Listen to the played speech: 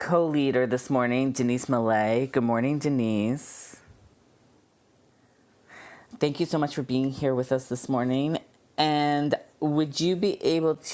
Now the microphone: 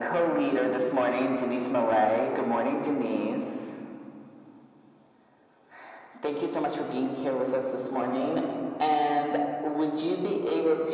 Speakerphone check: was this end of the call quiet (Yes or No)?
Yes